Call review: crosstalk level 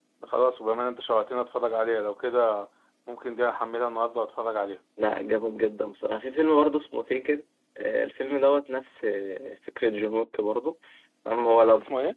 none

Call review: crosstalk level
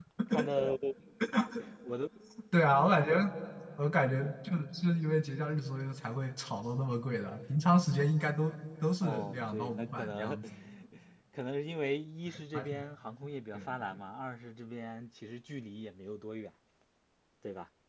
present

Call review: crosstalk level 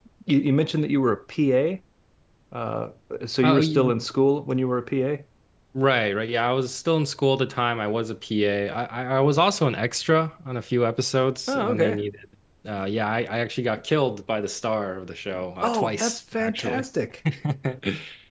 present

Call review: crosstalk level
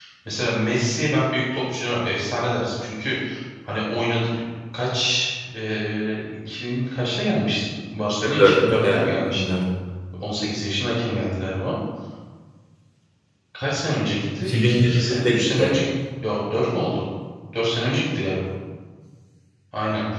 present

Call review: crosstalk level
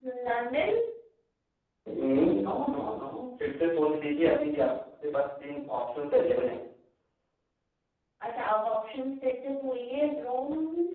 none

